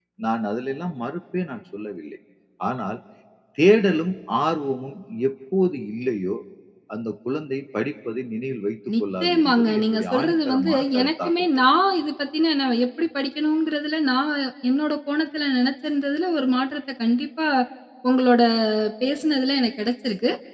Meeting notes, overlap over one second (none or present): present